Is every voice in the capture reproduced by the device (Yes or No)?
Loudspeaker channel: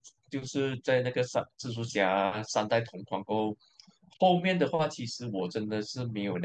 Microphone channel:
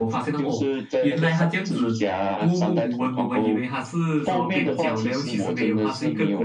No